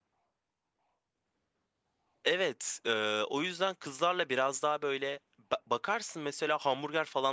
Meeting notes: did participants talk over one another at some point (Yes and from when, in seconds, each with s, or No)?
No